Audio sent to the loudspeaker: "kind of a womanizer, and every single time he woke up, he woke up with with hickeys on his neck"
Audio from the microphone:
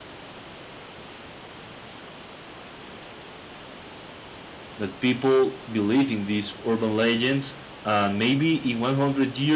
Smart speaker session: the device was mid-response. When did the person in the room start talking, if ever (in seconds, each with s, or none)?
4.8 s